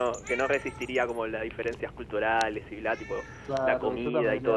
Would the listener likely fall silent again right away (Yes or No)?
No